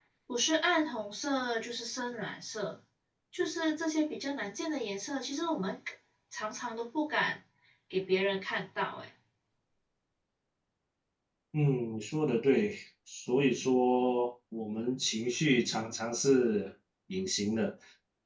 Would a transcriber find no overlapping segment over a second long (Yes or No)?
Yes